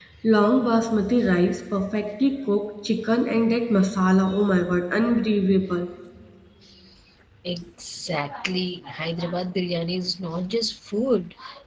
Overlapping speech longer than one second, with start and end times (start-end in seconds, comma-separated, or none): none